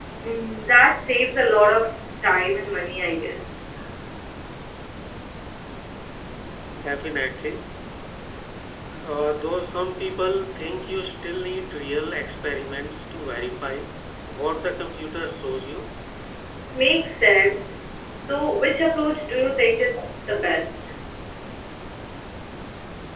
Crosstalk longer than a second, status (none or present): none